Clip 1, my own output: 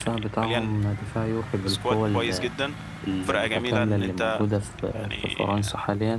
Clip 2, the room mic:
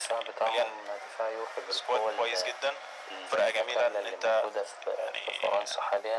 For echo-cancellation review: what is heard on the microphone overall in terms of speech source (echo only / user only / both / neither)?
echo only